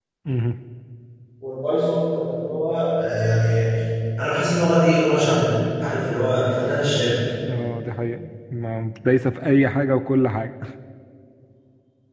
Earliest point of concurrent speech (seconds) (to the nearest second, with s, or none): none